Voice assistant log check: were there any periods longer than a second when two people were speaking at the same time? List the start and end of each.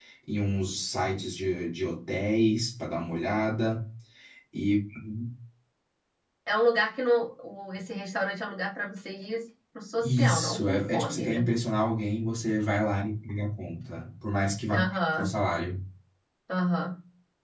10.0-11.4

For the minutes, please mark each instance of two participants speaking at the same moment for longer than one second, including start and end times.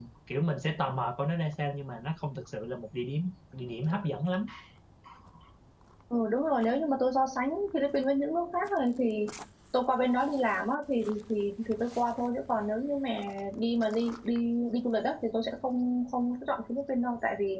none

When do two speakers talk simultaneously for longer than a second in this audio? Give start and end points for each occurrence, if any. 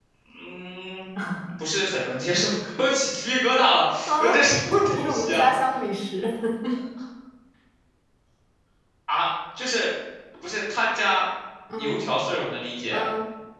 4.1-5.5

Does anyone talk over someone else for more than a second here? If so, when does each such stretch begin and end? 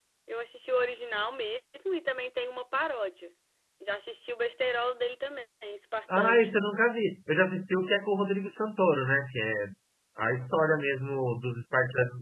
none

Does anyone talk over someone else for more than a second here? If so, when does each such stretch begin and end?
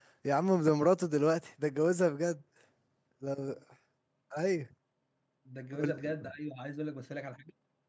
none

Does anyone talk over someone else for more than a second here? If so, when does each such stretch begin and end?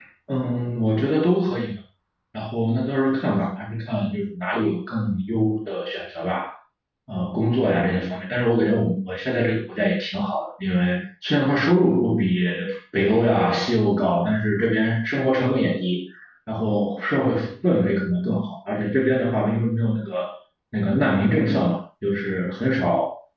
none

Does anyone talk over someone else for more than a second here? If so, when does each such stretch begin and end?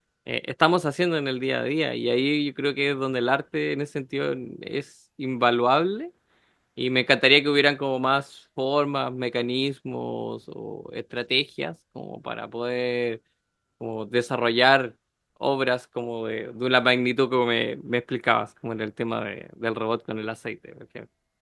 none

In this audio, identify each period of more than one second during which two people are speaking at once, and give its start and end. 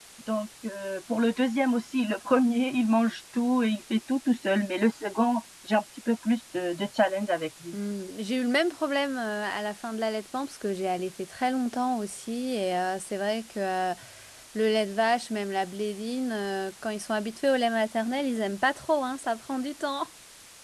none

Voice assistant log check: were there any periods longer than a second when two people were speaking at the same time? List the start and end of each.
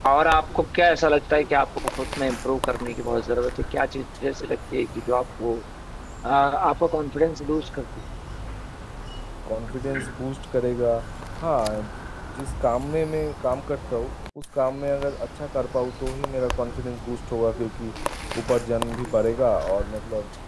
none

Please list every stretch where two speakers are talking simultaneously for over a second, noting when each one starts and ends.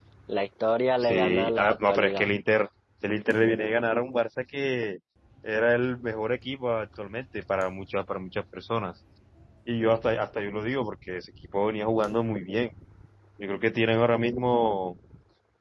1.0-2.3

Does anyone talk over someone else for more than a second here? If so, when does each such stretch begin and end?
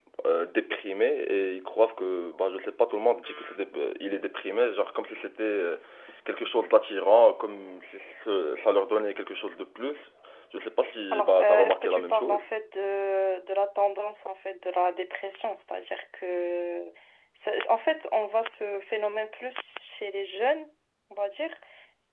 11.1-12.4

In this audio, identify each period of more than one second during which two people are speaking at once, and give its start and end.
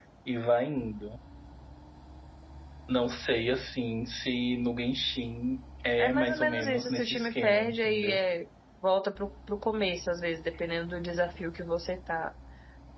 6.0-8.2

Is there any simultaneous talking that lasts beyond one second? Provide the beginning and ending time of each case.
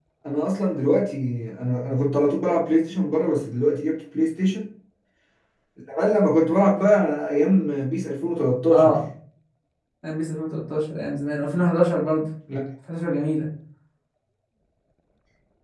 none

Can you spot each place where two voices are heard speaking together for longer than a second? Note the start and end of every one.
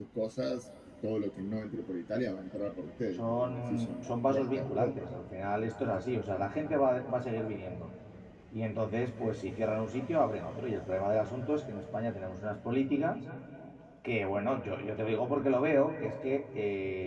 3.2-5.0

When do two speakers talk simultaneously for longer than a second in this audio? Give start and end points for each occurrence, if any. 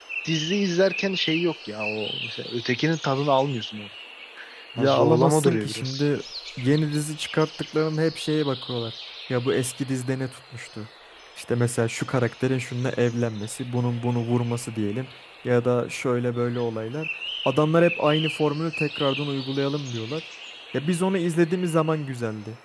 4.8-6.1

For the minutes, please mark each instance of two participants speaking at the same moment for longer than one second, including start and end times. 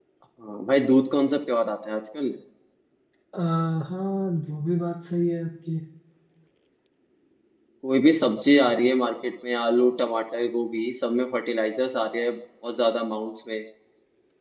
none

